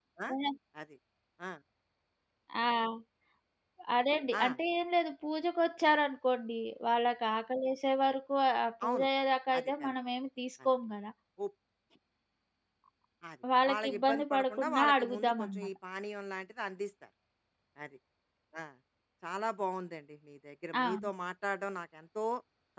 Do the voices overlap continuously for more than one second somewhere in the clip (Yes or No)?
Yes